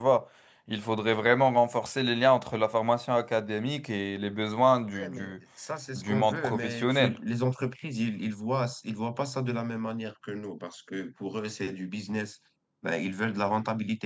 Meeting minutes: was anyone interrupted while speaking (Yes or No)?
Yes